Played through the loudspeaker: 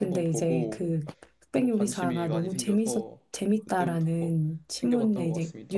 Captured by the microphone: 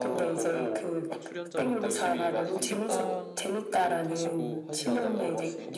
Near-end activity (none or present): present